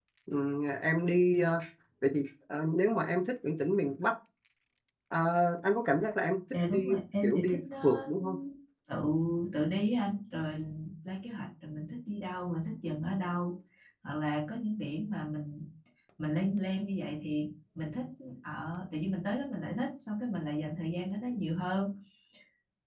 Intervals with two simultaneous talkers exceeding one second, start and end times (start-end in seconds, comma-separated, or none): 6.7-8.1